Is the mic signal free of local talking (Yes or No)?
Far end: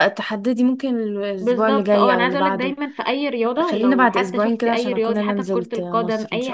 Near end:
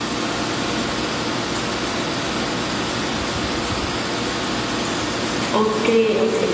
No